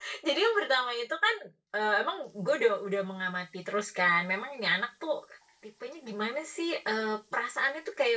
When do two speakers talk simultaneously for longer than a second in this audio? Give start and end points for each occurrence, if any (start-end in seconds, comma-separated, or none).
none